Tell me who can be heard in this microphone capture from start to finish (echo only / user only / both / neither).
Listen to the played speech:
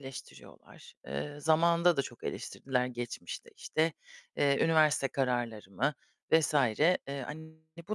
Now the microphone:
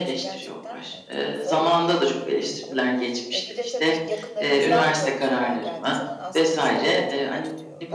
both